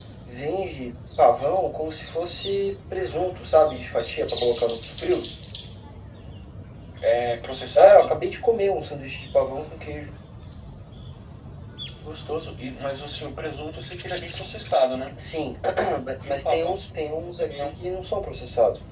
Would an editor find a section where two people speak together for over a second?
No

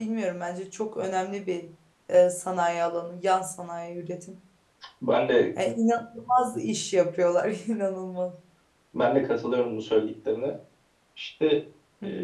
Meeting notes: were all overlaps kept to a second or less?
Yes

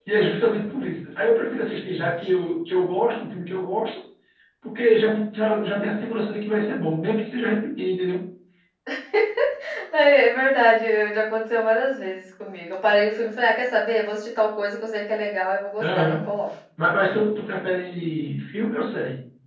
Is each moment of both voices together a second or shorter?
Yes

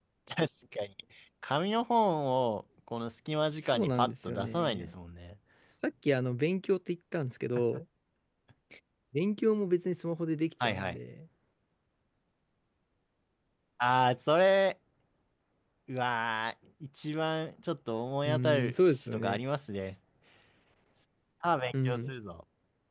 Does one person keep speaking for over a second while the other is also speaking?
Yes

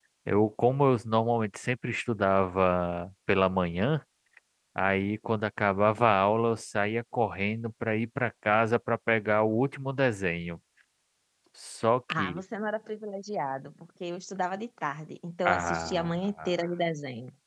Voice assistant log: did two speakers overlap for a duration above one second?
Yes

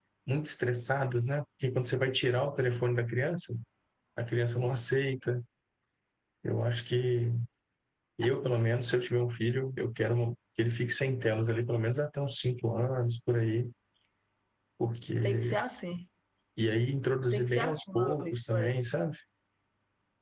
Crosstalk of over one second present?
Yes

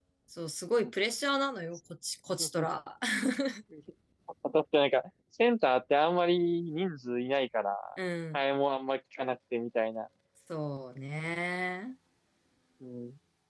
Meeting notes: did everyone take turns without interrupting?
Yes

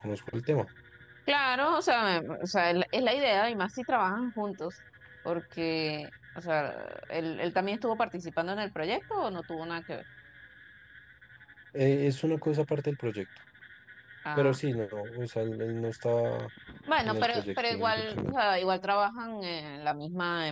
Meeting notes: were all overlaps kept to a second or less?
No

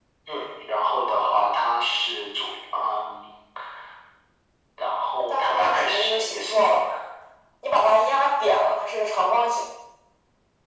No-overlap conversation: No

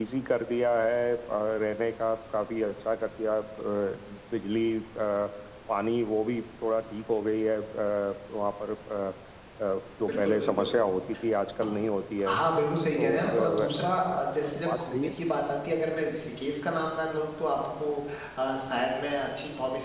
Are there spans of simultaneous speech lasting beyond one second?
Yes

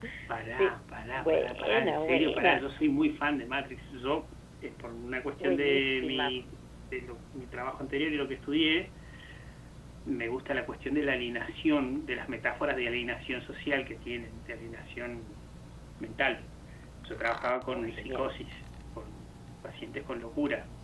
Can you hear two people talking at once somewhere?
Yes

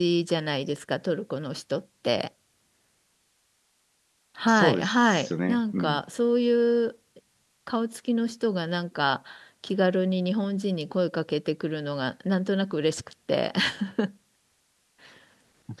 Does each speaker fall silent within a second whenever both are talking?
No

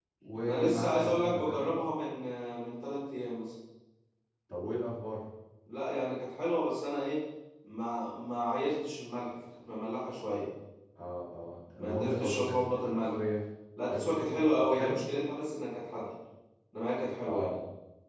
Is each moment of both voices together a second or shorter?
No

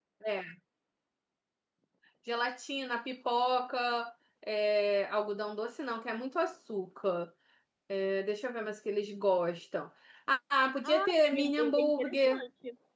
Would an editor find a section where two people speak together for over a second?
Yes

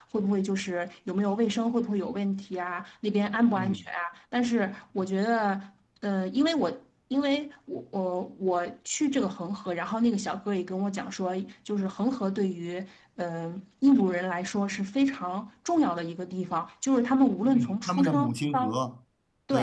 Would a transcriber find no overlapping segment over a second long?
No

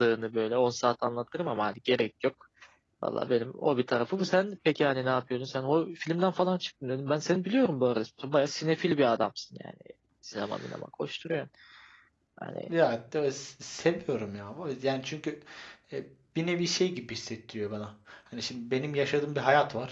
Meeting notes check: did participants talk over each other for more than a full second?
No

